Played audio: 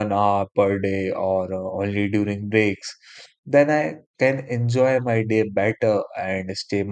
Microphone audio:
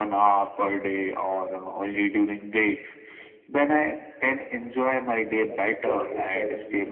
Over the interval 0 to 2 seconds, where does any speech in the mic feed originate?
echo only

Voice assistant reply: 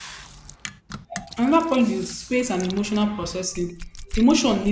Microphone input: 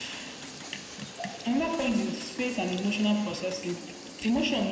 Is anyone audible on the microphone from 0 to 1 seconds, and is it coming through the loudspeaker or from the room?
neither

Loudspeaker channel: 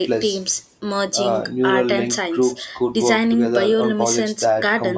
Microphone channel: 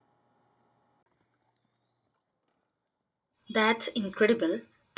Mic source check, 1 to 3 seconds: neither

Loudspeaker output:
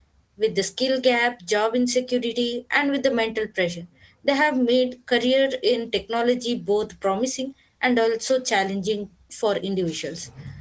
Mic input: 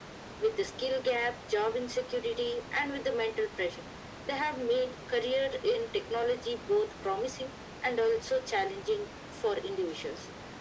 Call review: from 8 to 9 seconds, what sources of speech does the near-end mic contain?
echo only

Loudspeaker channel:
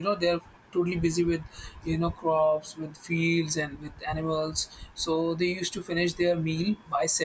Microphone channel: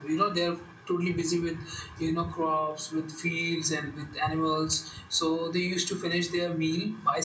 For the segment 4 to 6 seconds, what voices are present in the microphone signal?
echo only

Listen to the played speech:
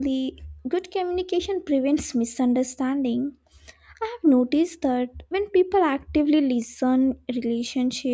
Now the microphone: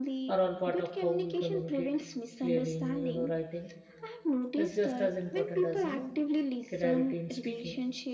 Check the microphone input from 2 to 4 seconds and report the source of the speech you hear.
both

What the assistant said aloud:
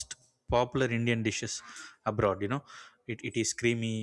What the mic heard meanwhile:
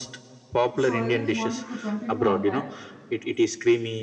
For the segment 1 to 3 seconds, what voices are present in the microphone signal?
both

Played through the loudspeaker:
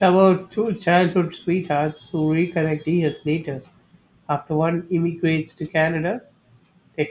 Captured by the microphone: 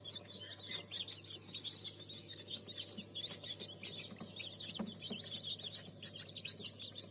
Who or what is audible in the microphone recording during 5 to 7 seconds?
neither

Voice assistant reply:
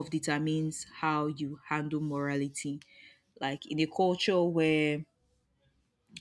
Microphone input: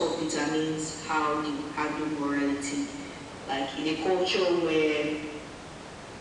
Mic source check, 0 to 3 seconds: echo only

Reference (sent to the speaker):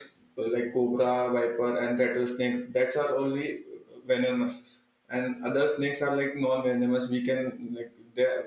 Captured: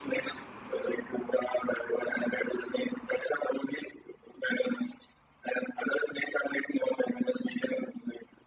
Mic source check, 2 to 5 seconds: echo only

